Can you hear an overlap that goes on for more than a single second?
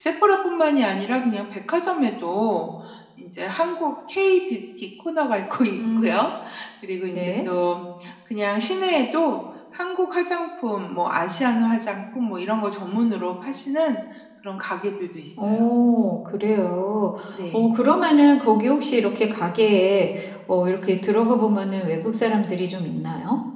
No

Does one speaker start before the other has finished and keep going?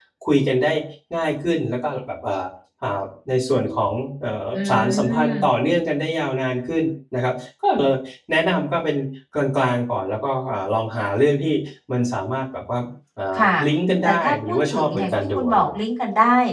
Yes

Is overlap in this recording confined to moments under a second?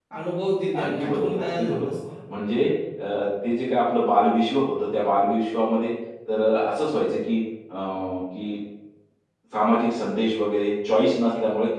No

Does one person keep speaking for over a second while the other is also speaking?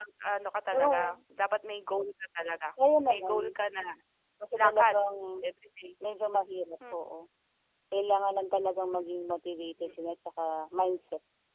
No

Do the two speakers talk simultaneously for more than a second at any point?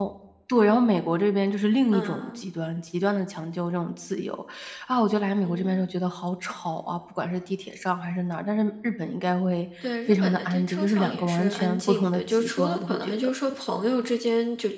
Yes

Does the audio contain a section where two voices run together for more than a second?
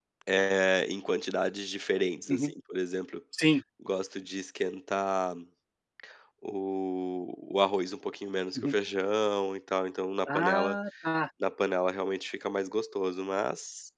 No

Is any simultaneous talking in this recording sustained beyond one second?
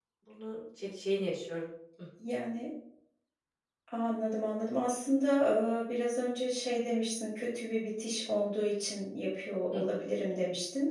No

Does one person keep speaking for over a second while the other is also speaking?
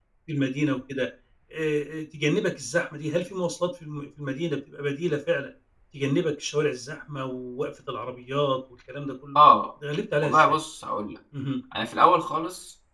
No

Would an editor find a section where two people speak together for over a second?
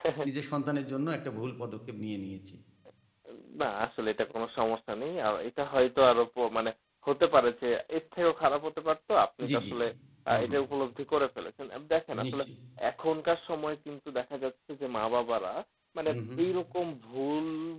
No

